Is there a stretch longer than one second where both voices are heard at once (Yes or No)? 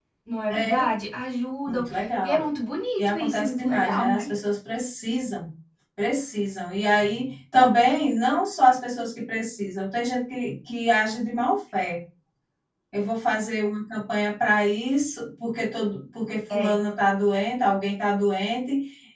Yes